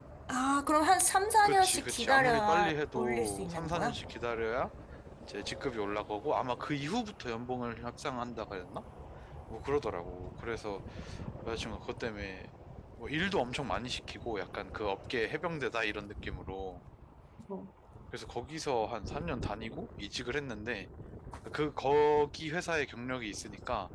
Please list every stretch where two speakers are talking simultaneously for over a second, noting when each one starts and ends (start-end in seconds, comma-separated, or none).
1.4-4.0